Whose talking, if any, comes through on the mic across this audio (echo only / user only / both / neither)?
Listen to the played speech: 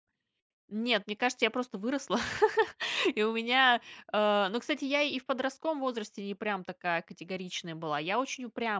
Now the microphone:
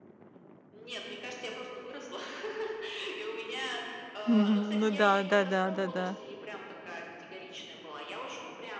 both